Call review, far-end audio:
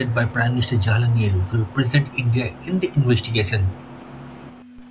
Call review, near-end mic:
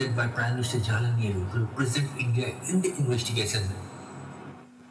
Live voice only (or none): none